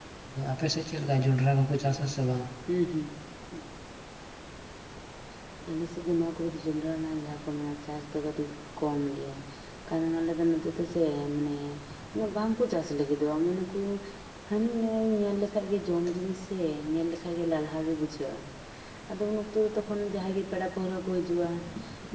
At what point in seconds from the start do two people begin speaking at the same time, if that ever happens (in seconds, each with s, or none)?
none